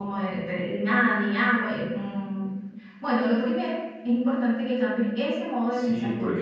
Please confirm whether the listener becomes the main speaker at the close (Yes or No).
Yes